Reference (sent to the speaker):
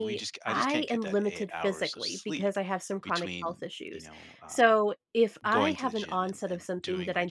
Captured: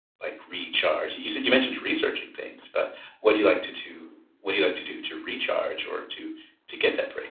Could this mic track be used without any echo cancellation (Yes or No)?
Yes